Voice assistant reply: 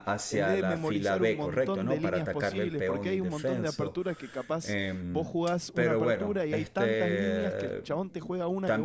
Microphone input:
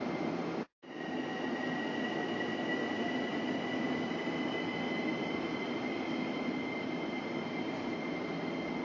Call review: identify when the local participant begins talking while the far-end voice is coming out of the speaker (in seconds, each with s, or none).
none